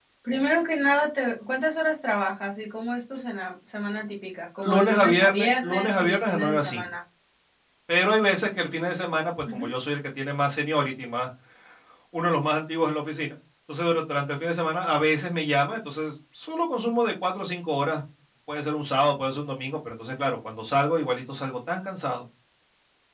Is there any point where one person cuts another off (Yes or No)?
Yes